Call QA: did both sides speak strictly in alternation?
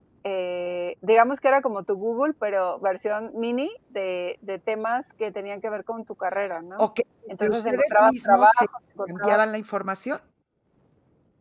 No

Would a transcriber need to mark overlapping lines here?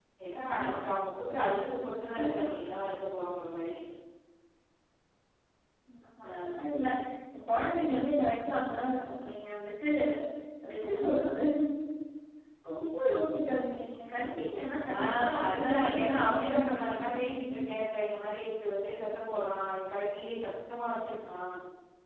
Yes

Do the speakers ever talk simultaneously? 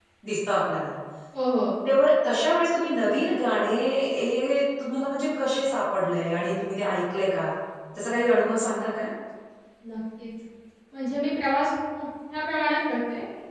No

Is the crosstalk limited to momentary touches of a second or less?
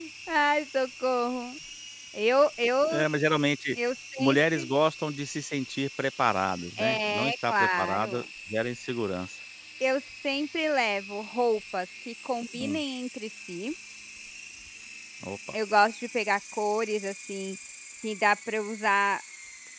No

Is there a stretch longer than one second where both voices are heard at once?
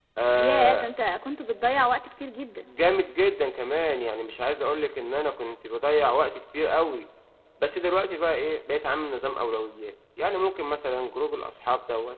No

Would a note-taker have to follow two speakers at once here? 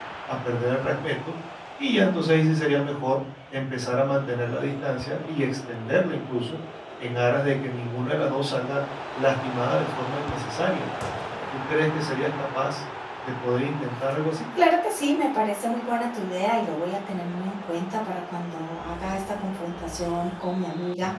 No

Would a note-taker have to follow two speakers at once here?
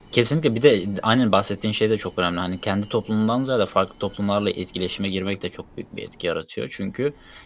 No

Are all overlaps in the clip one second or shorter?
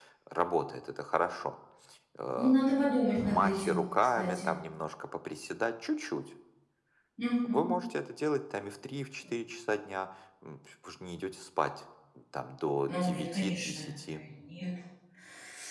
No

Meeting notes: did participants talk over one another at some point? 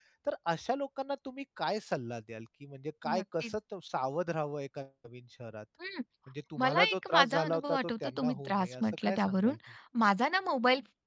Yes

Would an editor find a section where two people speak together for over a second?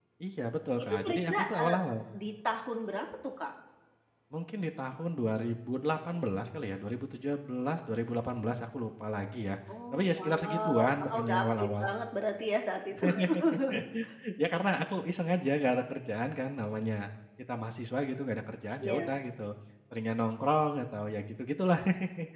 Yes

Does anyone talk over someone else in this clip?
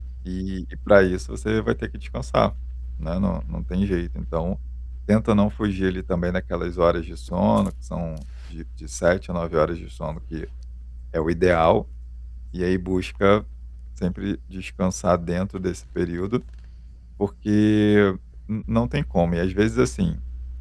No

